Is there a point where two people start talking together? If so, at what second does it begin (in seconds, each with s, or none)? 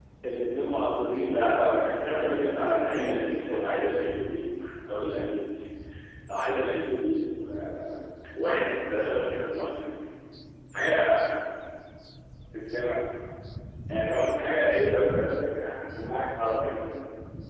1.3 s